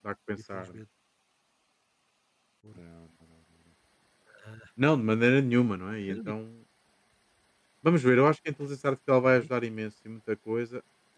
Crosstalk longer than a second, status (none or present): none